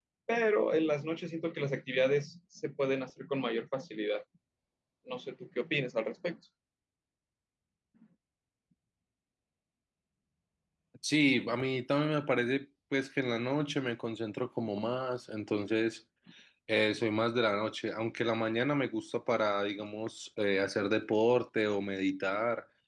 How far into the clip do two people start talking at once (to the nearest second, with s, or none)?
none